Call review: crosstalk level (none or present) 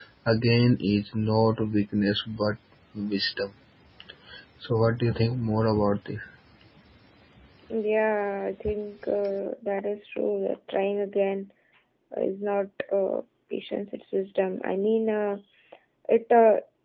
none